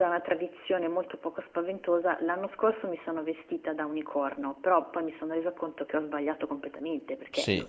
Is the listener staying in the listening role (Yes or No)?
No